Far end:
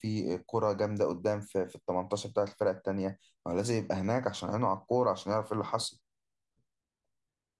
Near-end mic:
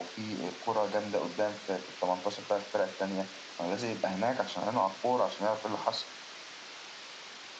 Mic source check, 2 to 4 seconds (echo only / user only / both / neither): echo only